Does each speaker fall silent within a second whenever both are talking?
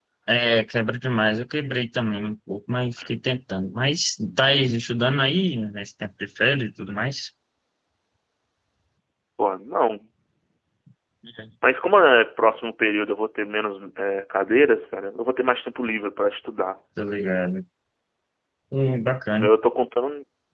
Yes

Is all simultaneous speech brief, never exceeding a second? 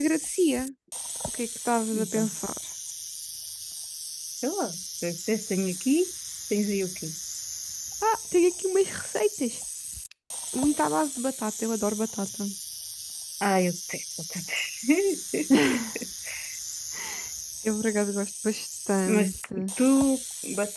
Yes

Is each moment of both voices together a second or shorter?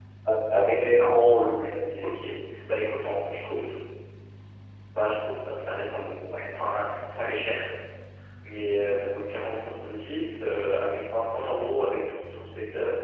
Yes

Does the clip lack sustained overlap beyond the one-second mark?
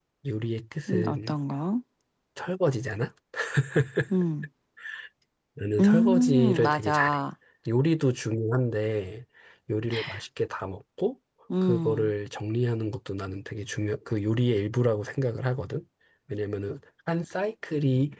No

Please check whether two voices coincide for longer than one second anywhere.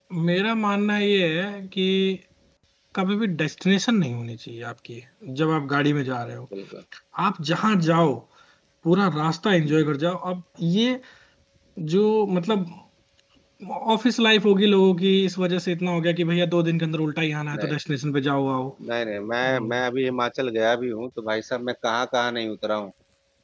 No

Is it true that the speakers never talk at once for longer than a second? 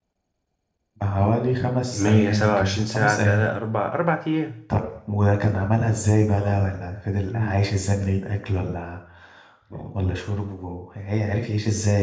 No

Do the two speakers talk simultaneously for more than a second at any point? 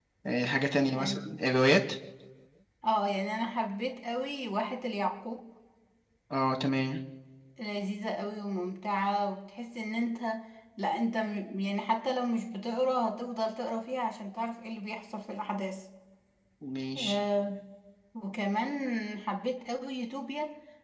No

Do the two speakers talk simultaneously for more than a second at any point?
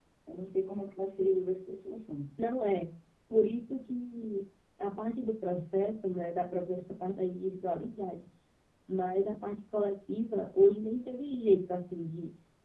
No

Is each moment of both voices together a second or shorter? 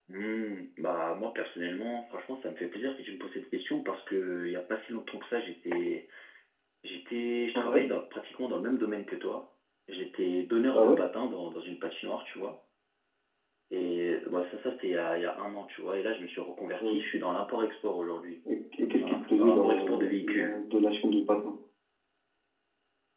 No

